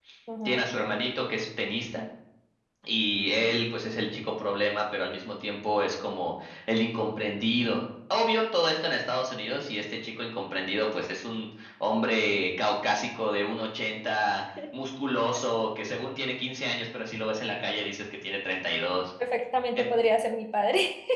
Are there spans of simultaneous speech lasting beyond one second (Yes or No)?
No